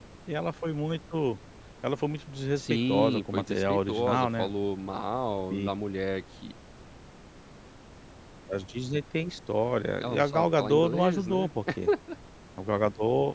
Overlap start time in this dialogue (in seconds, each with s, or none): 2.6 s